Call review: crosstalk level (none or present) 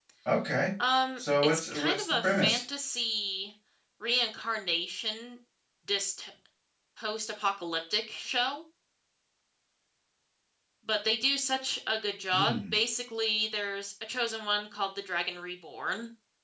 present